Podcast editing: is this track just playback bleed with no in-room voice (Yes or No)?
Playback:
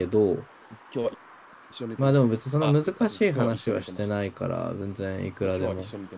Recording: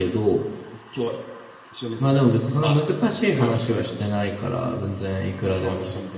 Yes